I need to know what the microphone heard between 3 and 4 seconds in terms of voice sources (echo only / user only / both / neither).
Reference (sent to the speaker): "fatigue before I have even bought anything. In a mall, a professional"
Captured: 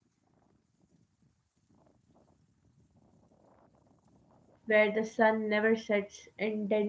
neither